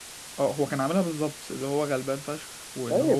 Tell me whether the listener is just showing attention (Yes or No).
No